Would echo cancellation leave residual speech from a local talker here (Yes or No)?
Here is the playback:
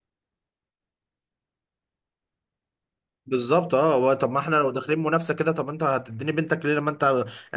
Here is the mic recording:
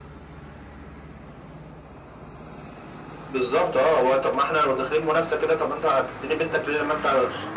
No